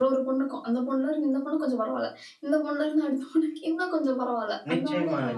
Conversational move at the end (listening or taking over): taking over